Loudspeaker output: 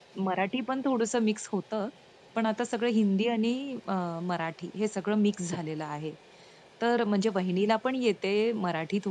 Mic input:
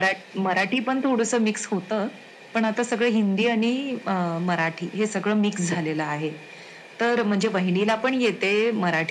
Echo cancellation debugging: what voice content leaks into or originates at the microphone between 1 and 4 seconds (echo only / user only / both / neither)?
echo only